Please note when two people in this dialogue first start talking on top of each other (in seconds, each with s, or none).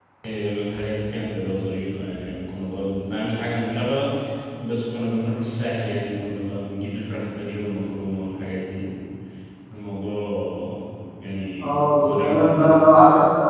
11.6 s